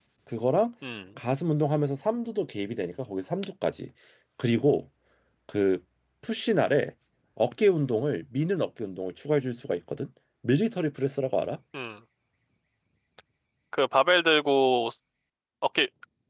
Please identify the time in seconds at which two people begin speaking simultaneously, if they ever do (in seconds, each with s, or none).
none